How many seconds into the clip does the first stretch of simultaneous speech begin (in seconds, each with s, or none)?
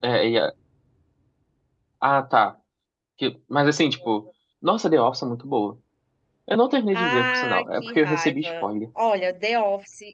6.9 s